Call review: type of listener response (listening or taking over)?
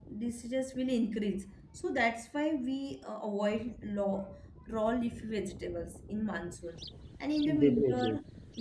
listening